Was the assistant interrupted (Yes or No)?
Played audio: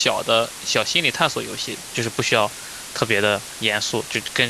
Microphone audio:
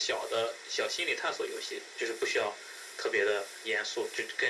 No